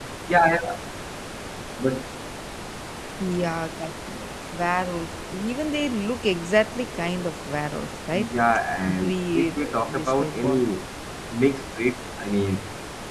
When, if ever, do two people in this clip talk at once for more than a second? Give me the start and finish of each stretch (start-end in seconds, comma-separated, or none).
8.9-10.6